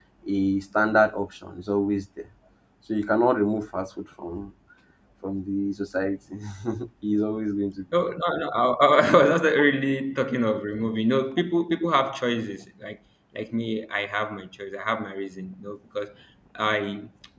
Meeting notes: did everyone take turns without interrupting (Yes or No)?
Yes